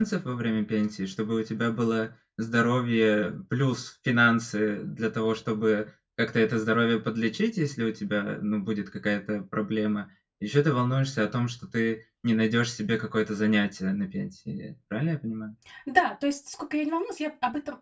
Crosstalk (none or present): none